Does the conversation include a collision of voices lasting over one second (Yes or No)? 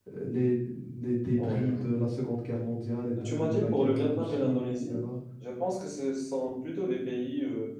Yes